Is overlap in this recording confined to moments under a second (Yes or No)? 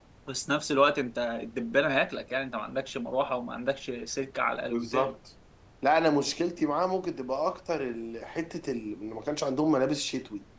Yes